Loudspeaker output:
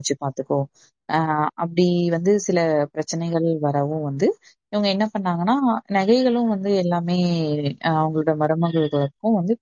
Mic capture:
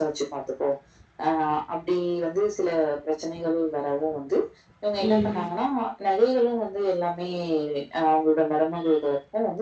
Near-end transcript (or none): ம்